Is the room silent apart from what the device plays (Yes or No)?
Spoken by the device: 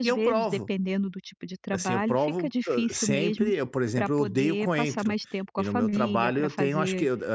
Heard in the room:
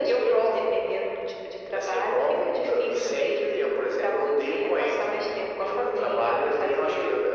Yes